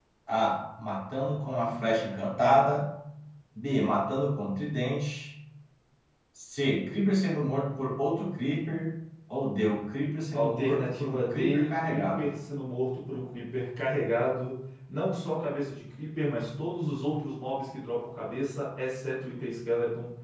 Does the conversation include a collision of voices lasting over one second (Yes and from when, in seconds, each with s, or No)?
Yes, from 10.3 s